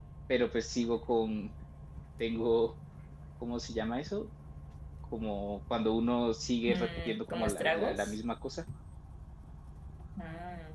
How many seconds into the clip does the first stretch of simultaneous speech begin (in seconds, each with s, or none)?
6.7 s